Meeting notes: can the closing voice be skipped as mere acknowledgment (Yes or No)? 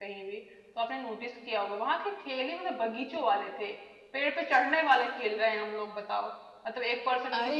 Yes